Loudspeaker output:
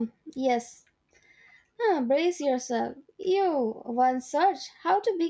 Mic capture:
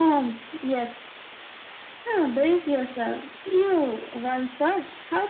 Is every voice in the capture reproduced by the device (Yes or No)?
Yes